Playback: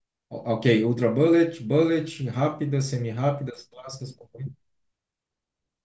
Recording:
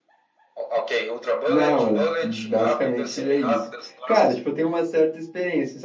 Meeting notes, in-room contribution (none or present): present